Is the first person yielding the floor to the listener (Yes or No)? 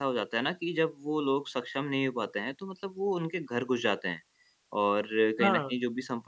No